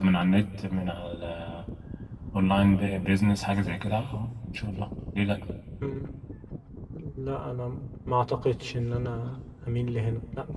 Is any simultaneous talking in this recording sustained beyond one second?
No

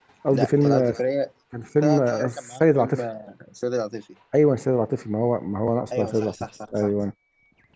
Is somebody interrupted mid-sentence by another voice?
Yes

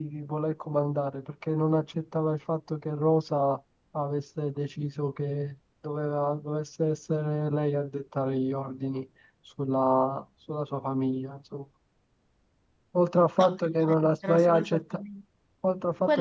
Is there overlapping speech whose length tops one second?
Yes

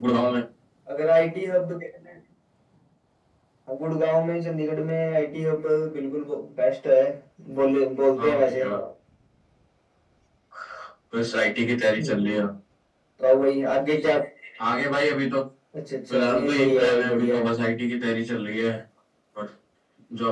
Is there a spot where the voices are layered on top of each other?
Yes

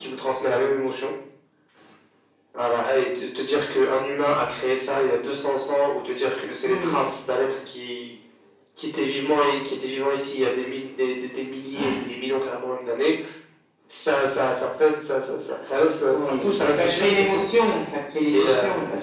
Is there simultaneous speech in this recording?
Yes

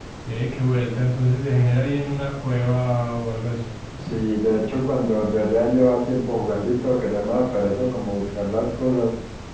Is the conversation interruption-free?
Yes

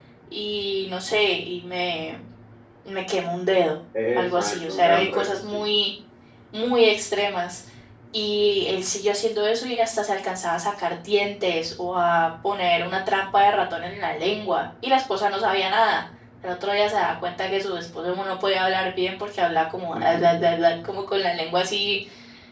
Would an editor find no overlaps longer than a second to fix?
No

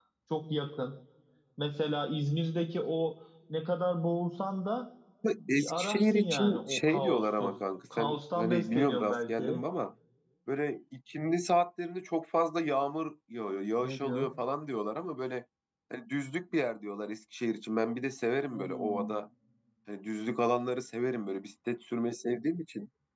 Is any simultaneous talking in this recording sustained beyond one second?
Yes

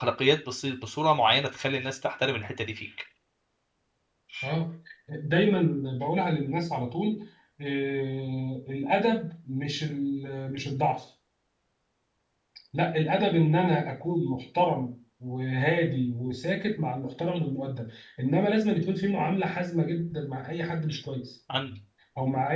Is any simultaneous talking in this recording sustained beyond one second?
No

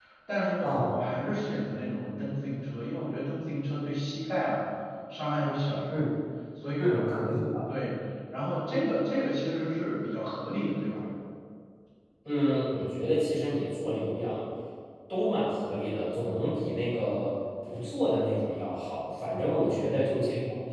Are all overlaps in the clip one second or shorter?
Yes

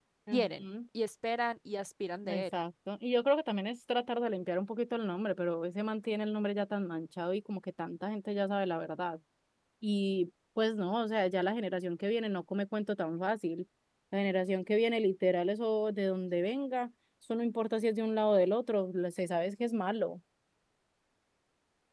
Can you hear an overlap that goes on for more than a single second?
No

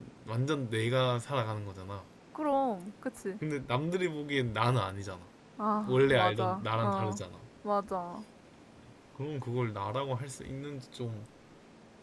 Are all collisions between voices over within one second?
No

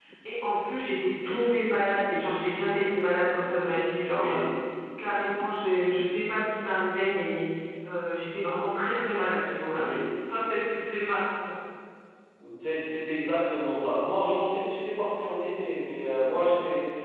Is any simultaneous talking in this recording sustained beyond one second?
No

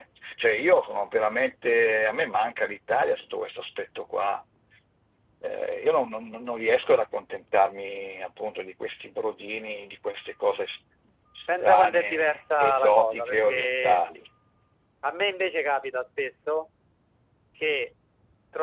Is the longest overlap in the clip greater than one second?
Yes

